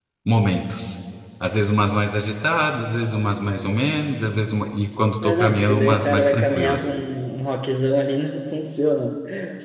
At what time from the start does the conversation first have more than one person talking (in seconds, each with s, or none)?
5.2 s